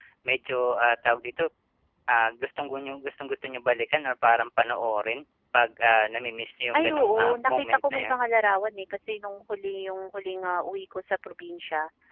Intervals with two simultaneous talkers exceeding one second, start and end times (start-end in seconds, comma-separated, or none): 6.7-8.2